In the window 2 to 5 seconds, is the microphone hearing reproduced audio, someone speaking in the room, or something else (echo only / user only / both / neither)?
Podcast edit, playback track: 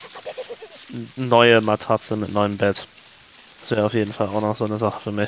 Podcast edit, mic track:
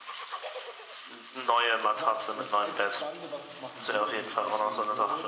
both